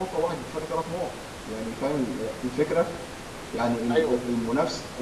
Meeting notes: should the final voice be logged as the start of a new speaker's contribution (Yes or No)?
No